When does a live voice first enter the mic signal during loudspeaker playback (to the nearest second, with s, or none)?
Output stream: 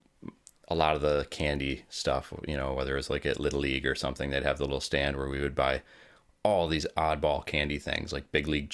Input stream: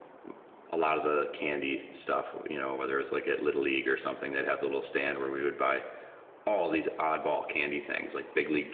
none